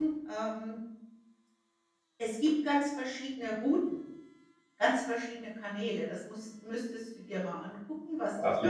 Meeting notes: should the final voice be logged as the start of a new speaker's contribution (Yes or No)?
Yes